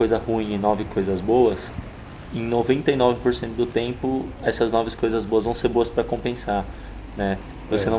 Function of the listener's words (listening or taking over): listening